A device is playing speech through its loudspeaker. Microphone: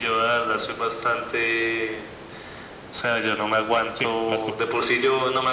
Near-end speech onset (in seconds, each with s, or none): 3.9 s